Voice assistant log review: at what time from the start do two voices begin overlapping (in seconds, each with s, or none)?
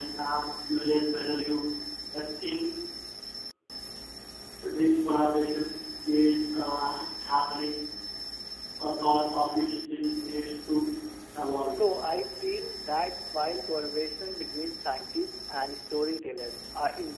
none